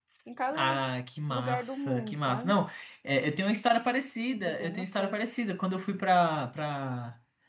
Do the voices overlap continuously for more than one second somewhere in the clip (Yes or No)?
Yes